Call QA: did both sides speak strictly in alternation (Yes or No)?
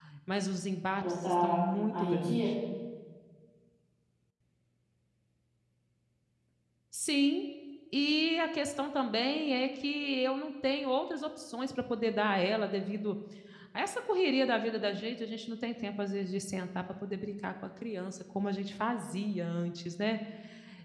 No